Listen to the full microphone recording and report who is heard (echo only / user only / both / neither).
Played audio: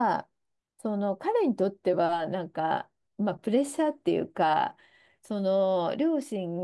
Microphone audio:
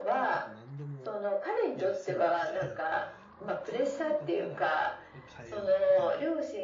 both